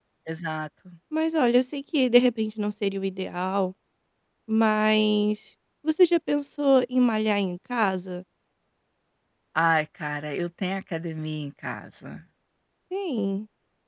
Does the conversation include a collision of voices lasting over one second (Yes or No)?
No